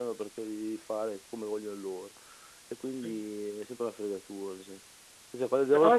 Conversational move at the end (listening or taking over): listening